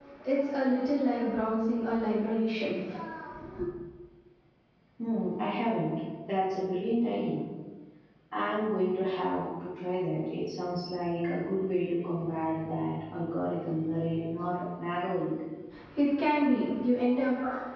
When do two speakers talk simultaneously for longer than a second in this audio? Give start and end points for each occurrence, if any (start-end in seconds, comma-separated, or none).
none